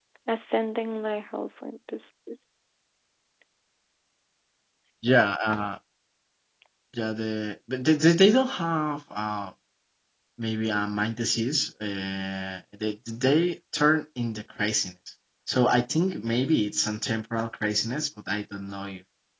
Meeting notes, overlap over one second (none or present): none